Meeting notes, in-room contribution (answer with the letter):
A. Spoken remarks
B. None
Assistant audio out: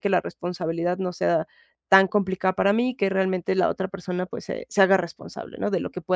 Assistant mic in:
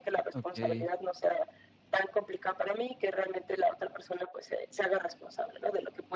A